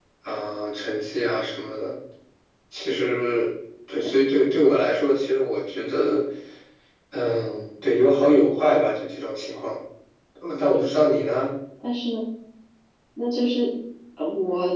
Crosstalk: none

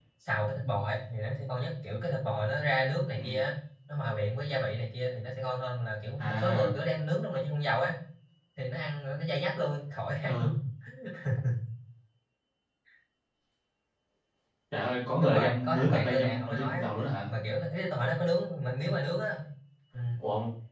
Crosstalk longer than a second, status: present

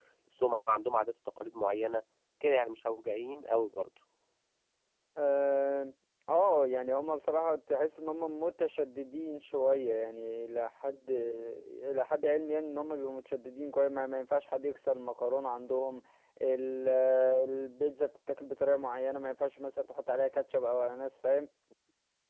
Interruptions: none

